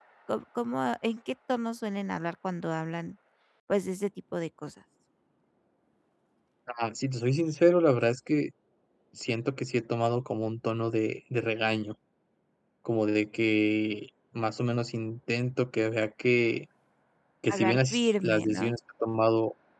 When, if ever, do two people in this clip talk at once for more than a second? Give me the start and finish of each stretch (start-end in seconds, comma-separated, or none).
17.5-18.7